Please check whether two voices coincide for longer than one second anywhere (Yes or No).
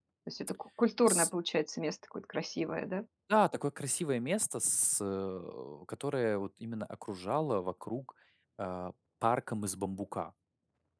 No